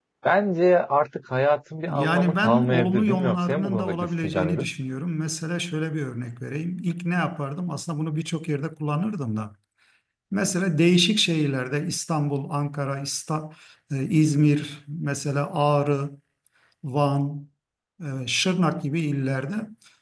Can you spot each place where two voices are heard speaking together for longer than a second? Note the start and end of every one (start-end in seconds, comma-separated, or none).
1.9-4.7